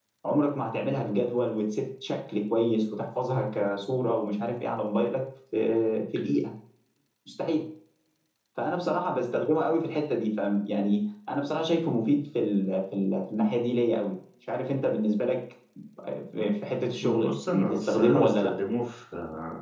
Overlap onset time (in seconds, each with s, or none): 17.0 s